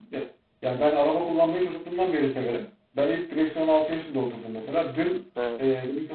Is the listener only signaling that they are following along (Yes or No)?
Yes